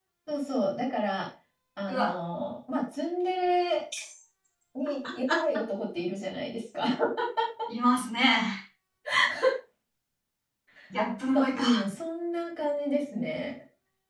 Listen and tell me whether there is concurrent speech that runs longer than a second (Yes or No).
No